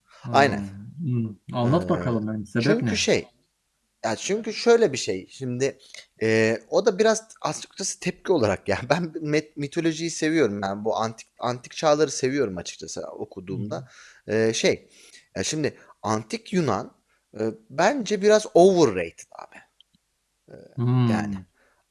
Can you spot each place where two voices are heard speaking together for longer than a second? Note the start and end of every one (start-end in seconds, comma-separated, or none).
none